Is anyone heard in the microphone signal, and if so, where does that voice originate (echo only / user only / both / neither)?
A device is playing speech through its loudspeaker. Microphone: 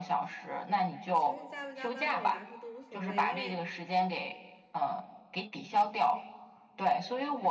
both